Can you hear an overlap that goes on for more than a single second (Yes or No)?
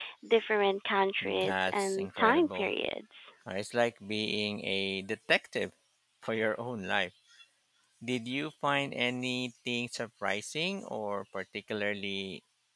Yes